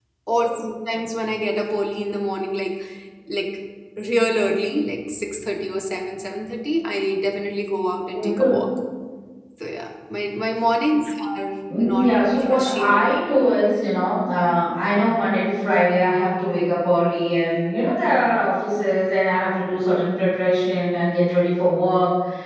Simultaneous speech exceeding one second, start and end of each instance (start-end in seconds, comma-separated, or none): 11.8-13.2